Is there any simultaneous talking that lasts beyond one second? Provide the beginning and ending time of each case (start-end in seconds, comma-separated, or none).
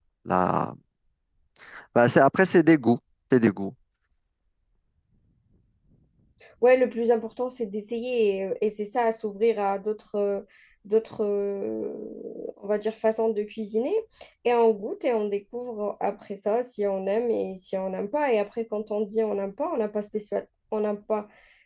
none